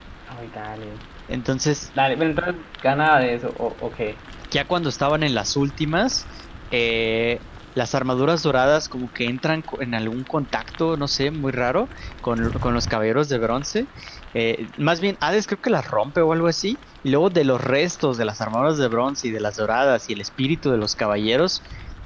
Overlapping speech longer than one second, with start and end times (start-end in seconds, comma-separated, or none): none